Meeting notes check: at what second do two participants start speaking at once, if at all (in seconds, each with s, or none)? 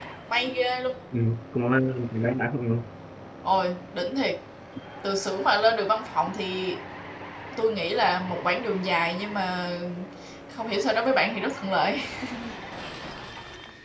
none